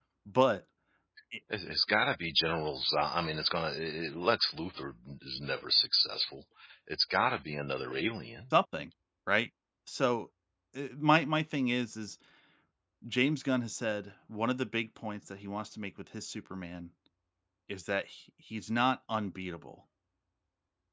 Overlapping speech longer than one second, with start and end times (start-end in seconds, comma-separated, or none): none